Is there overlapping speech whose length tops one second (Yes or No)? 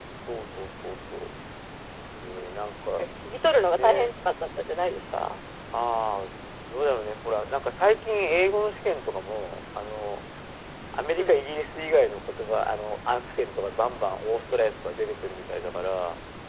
No